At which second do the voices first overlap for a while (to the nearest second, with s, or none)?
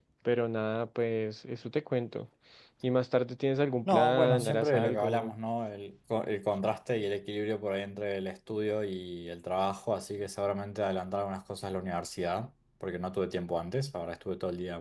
4 s